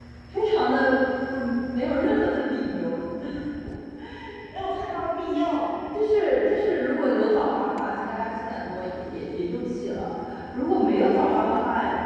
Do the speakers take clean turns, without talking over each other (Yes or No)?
Yes